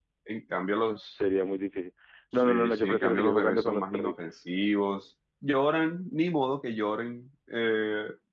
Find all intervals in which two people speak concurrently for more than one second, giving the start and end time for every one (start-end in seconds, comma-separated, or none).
2.4-4.4